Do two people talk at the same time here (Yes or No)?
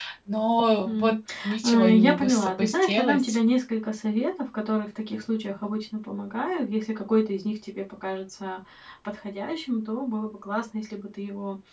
Yes